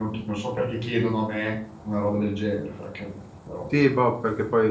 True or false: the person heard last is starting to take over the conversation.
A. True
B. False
A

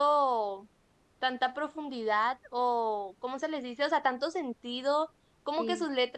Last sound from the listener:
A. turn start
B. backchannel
B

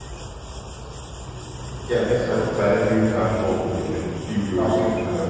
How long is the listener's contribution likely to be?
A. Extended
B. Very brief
B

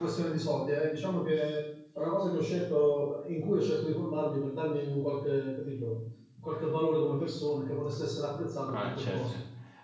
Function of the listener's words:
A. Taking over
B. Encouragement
A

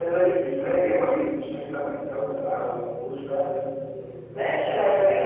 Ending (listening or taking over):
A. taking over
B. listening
A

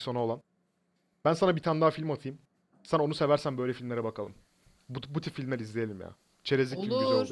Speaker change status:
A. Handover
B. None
A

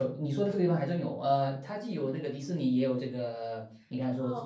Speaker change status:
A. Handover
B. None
A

